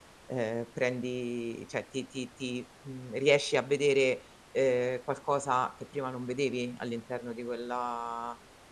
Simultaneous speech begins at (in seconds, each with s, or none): none